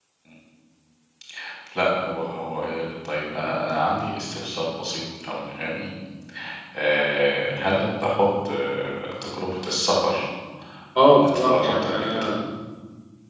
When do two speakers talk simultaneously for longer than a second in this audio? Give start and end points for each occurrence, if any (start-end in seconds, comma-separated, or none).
11.0-12.3